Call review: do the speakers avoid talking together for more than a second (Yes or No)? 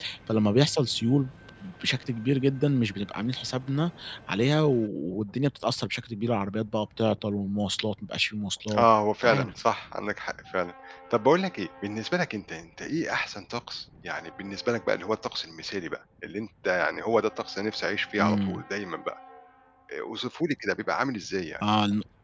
Yes